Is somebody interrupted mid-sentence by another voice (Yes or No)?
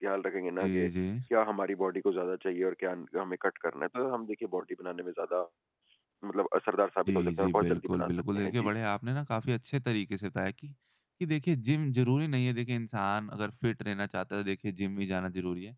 Yes